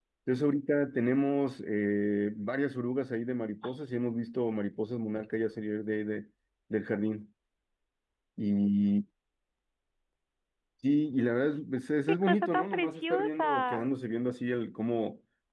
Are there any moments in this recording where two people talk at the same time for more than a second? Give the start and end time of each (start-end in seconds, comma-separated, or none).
12.2-13.8